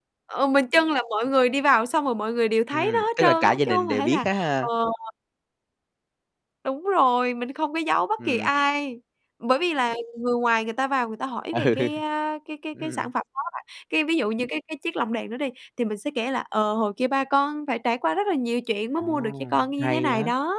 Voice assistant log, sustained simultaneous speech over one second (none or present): present